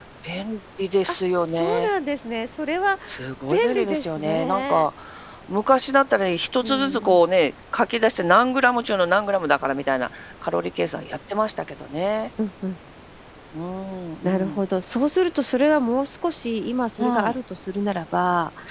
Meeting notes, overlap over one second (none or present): present